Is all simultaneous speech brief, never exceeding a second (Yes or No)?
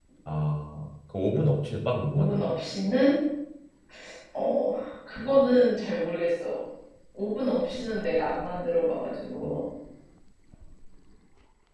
Yes